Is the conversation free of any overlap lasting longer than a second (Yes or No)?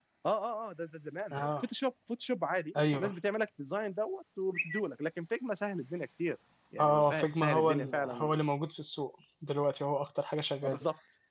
No